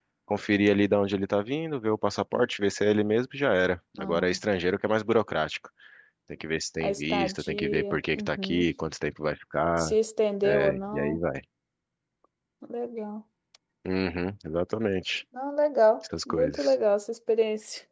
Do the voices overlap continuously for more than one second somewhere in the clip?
Yes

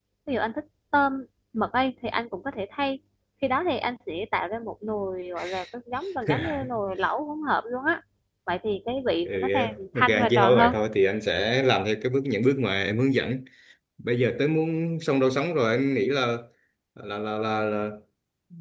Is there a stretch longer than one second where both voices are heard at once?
Yes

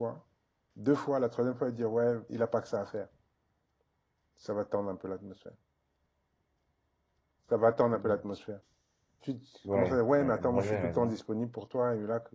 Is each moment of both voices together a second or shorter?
No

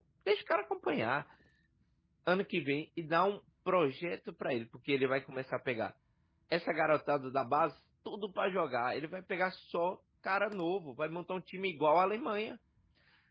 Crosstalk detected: No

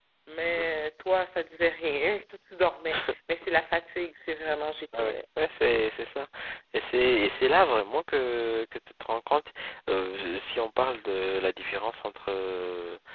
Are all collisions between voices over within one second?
Yes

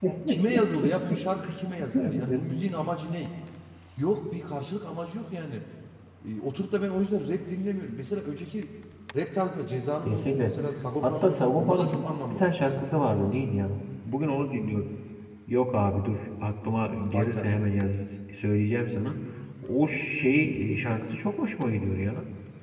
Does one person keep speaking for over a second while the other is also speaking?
Yes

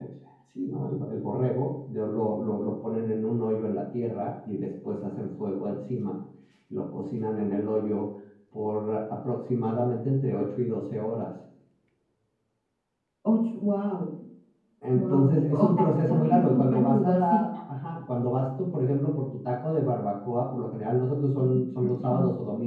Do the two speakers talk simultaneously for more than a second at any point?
Yes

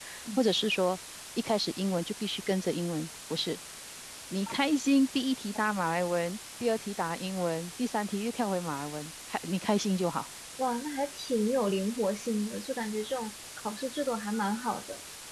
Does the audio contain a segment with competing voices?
No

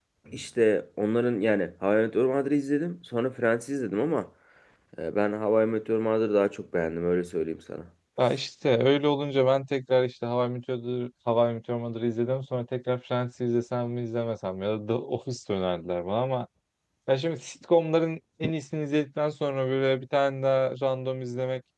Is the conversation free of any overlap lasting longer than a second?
Yes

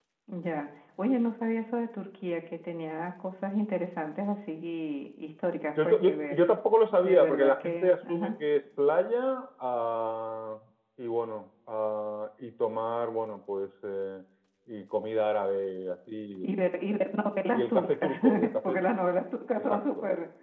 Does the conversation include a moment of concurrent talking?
Yes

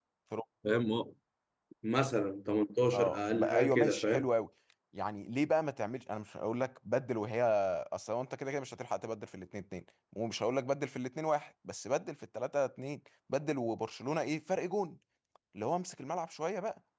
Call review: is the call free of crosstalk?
No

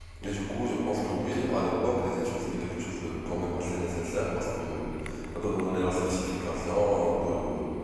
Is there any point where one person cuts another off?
No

